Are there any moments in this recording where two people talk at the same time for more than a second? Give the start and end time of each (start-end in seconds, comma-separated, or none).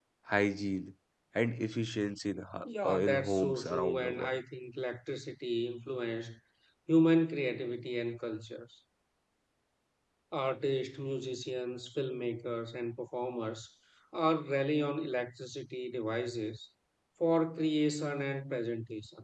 2.8-4.4